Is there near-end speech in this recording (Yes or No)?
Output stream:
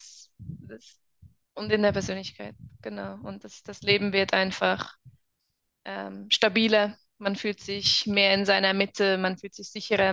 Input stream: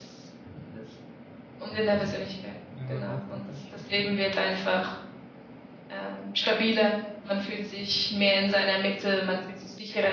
Yes